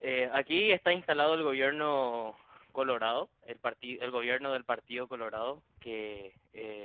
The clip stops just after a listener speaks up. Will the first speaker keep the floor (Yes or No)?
Yes